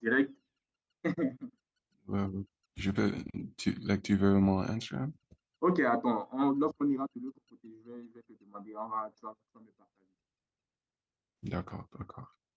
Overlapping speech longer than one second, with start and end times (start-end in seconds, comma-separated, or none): none